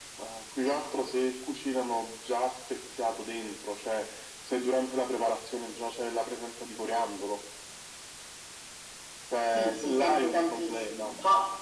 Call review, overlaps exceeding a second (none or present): present